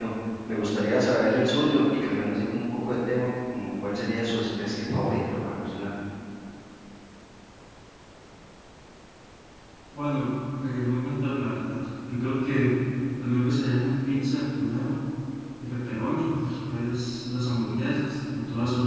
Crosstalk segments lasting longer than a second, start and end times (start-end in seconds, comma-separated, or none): none